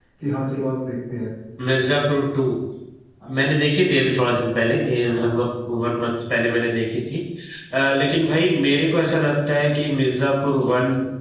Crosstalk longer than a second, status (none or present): none